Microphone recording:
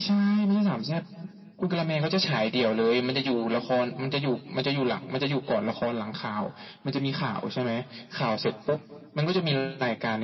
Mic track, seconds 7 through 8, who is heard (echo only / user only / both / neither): echo only